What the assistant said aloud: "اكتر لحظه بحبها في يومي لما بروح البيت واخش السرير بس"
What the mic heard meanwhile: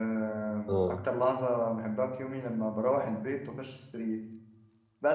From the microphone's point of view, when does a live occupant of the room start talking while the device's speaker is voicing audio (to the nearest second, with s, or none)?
1 s